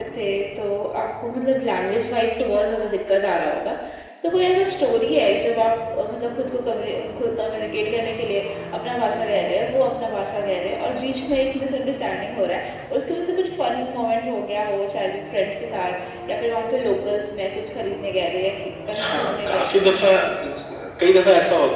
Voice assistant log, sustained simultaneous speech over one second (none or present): present